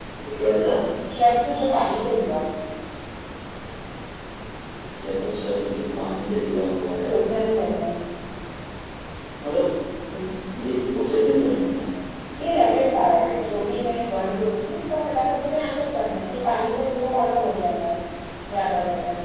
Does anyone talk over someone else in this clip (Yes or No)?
No